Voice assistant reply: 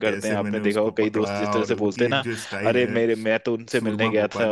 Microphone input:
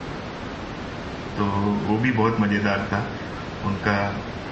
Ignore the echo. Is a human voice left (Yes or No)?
Yes